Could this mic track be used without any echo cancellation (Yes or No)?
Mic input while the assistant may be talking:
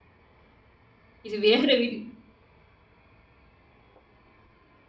Yes